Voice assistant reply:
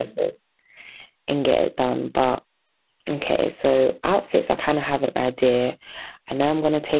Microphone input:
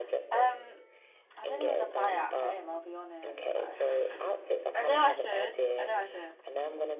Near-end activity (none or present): present